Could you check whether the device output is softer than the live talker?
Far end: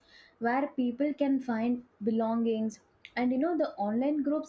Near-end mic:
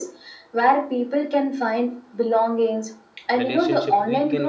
No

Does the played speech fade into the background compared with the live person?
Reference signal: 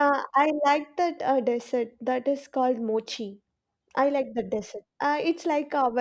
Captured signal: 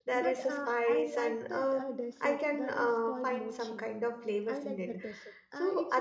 Yes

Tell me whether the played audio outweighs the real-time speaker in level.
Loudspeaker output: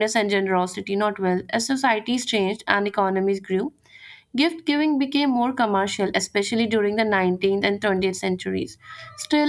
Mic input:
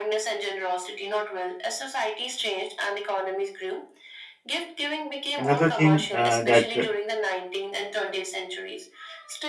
No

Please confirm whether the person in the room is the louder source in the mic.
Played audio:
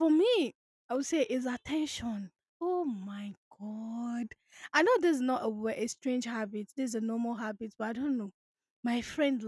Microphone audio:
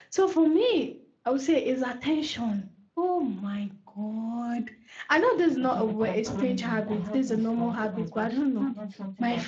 No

